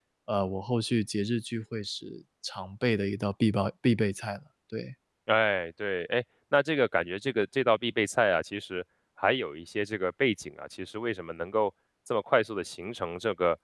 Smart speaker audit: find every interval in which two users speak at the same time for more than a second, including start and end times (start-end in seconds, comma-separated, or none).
none